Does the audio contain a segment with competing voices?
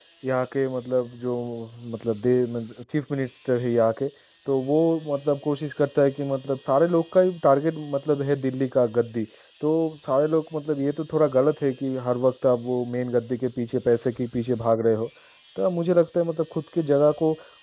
No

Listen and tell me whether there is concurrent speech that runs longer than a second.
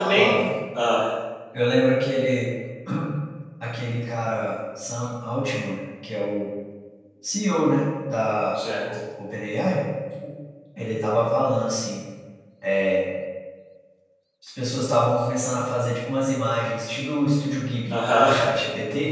No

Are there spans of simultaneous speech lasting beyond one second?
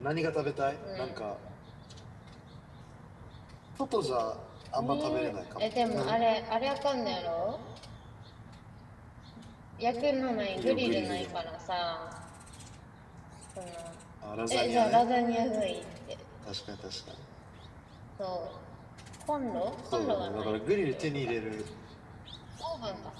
Yes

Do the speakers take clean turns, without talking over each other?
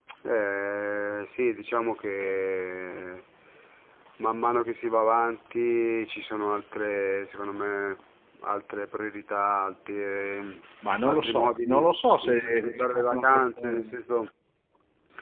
No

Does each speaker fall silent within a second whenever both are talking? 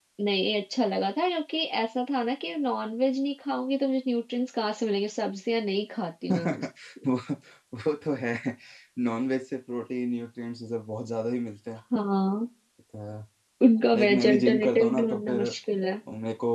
No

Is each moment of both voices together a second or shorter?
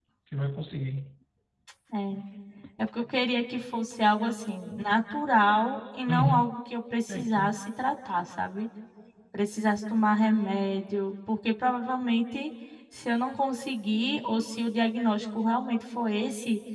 Yes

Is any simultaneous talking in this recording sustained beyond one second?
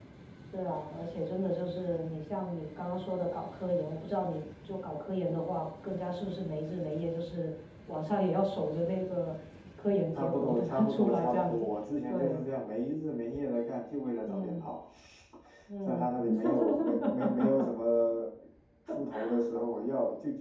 Yes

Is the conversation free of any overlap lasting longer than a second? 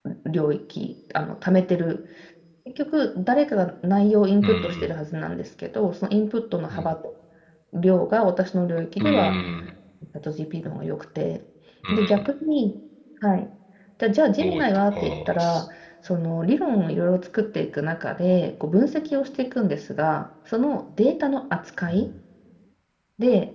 No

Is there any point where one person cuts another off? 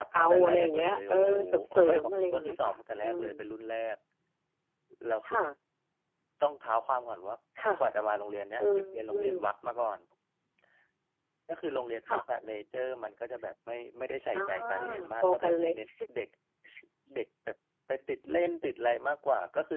Yes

